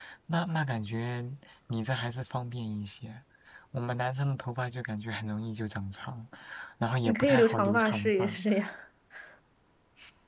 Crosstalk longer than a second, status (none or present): present